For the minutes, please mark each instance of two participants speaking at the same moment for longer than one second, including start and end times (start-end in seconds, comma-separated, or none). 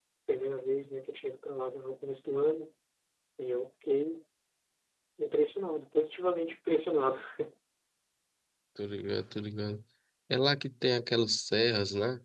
none